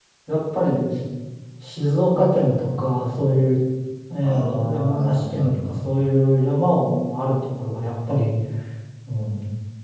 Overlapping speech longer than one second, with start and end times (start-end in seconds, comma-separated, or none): 4.2-5.7